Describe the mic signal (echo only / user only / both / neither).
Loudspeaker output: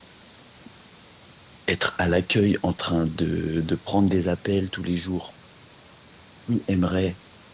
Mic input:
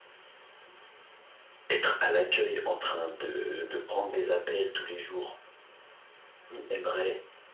echo only